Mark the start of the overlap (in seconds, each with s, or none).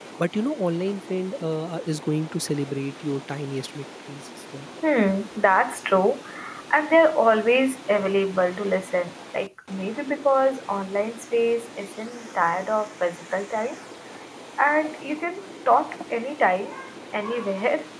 none